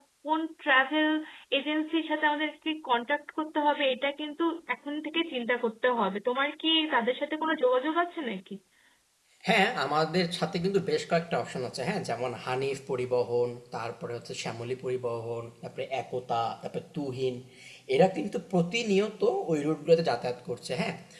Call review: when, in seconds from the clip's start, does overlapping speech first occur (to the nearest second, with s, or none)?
none